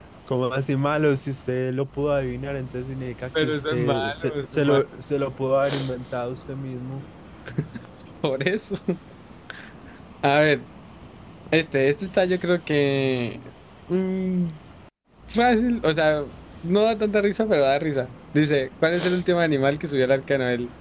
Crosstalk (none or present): present